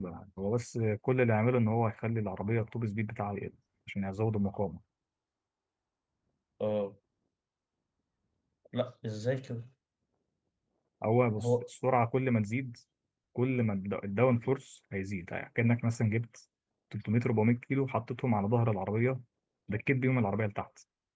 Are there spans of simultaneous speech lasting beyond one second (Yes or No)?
No